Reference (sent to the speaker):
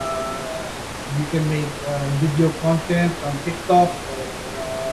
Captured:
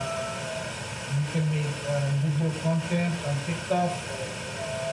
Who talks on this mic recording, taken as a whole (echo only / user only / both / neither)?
echo only